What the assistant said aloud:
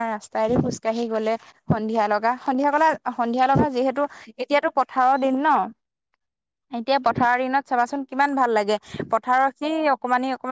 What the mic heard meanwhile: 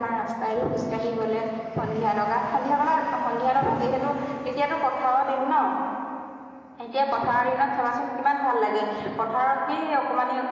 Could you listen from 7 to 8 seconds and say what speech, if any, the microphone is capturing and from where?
echo only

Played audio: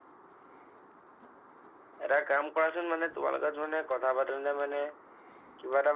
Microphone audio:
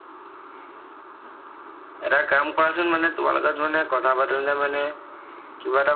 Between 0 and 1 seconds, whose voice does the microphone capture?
neither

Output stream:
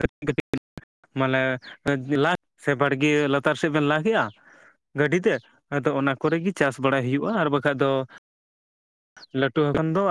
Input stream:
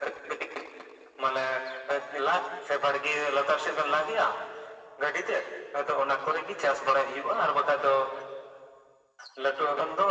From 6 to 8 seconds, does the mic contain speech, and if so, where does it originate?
echo only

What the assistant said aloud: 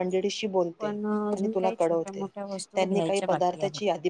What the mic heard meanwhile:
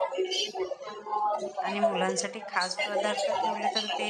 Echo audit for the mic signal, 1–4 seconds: both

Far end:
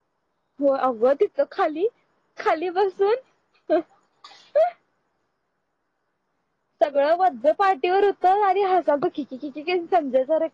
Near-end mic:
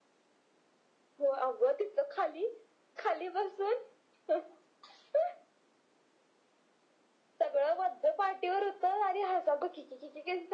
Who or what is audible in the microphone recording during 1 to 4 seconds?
echo only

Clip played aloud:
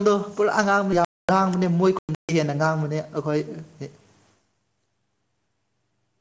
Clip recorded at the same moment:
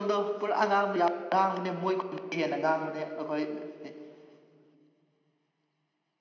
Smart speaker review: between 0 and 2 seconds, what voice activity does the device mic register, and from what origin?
echo only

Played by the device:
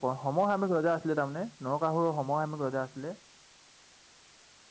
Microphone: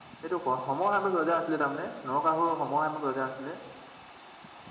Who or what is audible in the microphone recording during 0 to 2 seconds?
echo only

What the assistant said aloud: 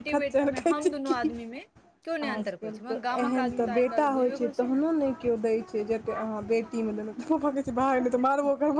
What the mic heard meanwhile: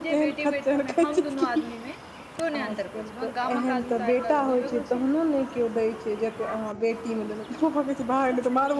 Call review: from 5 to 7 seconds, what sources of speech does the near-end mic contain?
echo only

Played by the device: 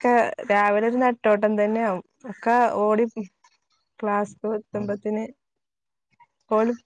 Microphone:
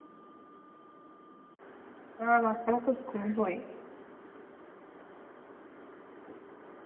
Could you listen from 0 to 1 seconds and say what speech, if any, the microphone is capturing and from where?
neither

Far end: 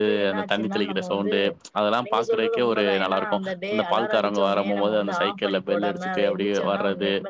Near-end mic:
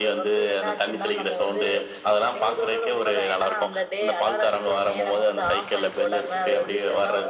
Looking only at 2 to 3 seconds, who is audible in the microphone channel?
echo only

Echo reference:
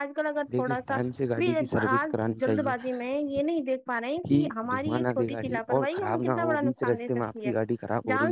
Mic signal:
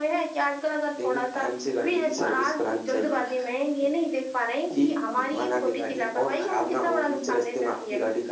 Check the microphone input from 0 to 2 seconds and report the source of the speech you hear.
echo only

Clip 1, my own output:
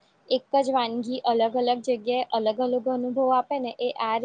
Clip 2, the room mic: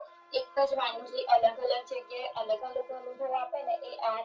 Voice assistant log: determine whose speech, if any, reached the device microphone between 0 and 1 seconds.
echo only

